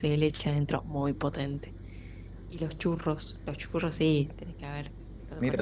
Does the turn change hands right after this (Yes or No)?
Yes